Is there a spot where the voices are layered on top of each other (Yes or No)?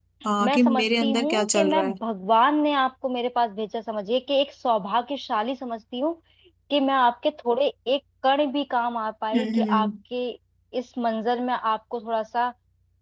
Yes